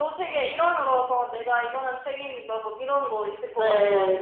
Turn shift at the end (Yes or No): Yes